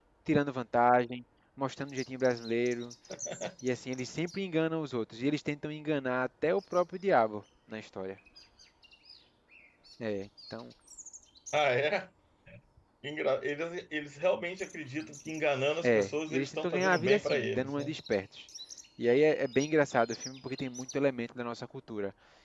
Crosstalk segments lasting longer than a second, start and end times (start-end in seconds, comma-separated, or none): 15.8-17.9